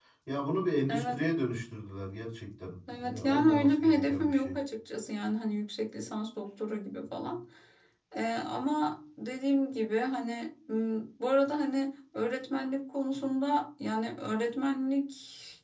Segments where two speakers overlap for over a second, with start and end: 2.9-4.6

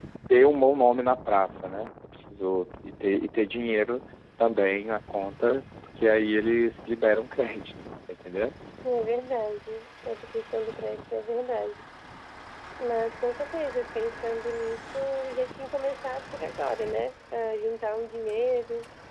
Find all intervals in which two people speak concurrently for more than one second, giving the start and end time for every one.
none

